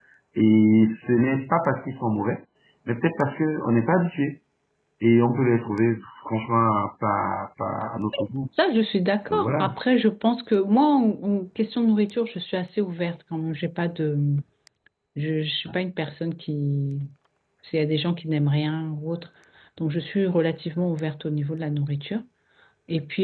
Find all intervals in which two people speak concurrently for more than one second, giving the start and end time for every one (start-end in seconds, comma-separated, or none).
none